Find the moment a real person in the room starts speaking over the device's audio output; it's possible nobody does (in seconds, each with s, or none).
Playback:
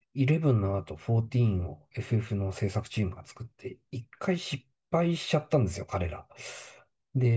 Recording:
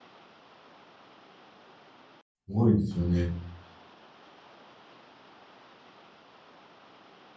2.5 s